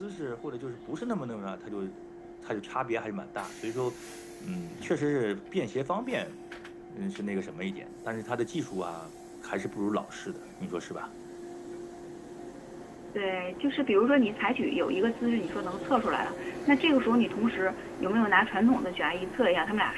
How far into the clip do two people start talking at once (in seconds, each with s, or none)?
none